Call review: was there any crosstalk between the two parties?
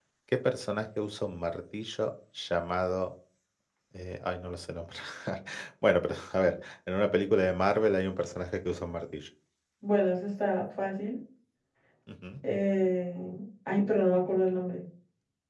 No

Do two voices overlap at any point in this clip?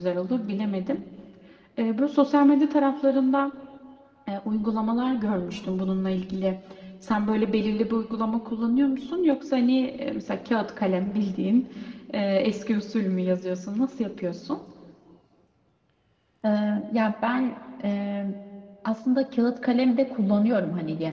No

